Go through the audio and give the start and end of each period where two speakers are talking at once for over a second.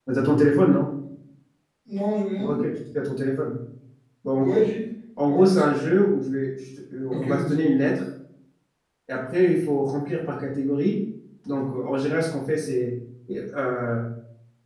none

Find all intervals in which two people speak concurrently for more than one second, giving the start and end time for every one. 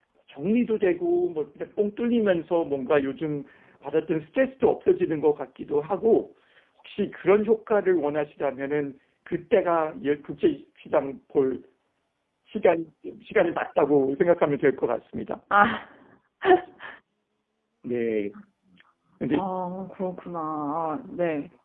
none

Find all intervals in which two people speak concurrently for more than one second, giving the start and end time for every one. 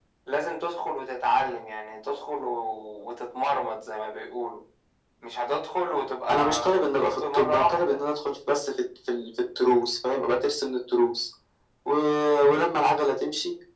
6.3-8.0

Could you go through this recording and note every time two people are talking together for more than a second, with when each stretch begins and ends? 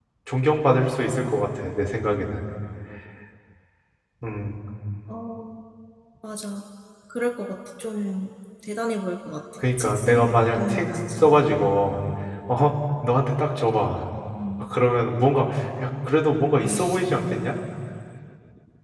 9.8-11.4

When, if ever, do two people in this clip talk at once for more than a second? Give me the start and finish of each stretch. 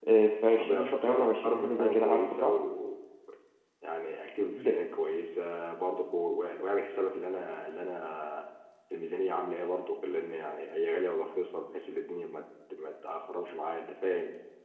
0.6-2.4

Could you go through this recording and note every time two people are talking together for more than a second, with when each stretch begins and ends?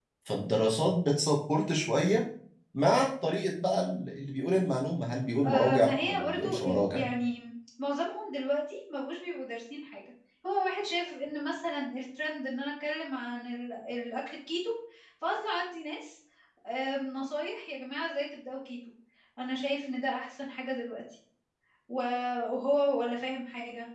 5.5-7.0

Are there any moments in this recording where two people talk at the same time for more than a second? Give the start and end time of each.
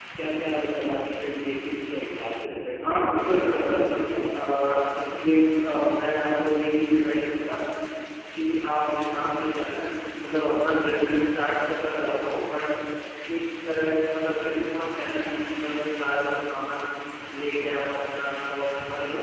2.8-4.3

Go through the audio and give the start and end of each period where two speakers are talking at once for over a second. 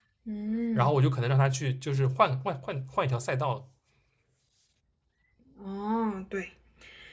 none

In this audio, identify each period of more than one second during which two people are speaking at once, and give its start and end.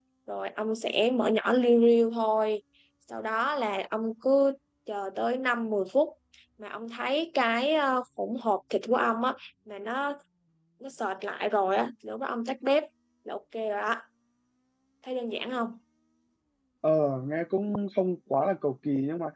none

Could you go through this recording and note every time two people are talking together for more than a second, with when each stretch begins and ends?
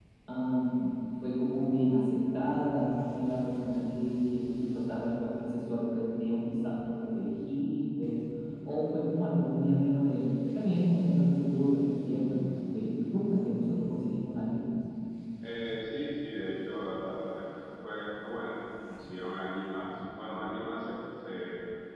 none

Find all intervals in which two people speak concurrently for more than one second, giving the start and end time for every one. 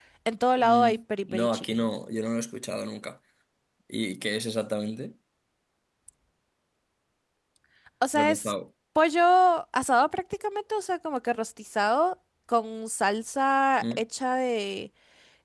0.6-1.9

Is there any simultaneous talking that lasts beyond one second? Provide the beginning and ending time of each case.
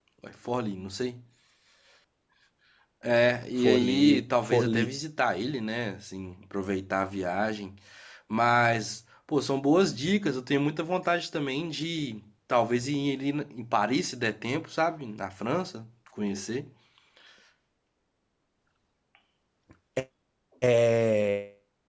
3.6-4.9

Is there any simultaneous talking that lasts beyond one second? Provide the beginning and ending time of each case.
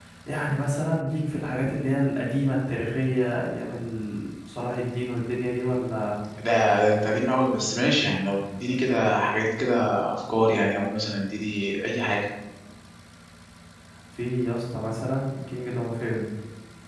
none

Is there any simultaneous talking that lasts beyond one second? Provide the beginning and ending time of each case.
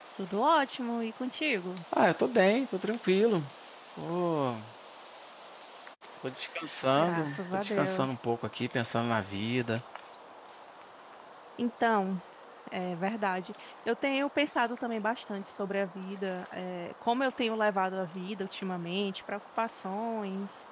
7.0-8.2

